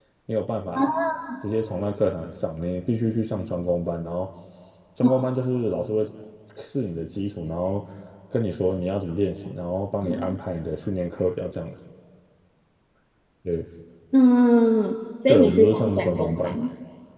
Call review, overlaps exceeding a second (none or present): present